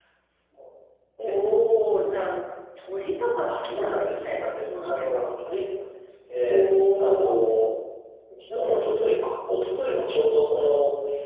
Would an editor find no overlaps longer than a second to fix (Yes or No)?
No